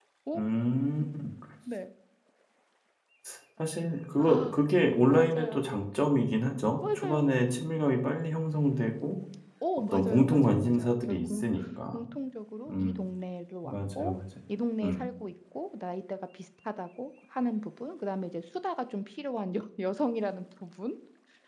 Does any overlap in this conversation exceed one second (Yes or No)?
Yes